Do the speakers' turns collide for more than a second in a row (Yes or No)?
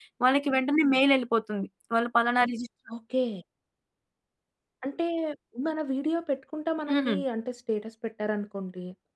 No